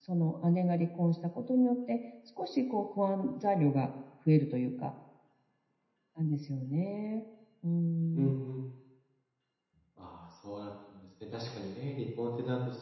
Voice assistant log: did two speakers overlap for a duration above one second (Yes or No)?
No